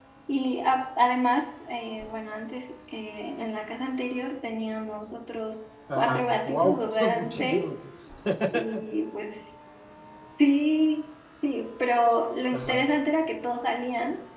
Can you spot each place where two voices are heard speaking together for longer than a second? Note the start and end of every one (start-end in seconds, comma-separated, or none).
5.9-7.7